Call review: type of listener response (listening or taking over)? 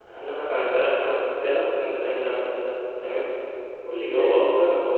listening